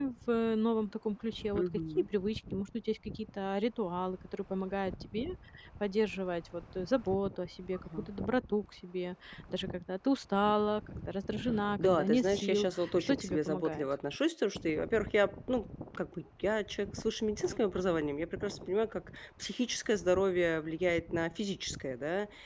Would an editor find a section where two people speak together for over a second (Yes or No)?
Yes